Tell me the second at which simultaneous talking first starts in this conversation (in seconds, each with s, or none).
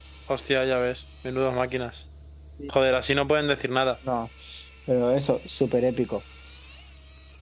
none